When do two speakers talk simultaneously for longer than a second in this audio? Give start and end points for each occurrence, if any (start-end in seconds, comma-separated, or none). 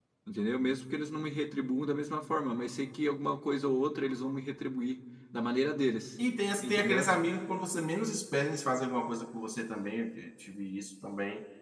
none